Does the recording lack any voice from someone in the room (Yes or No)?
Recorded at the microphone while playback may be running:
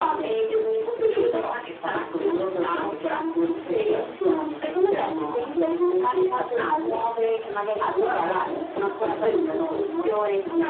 No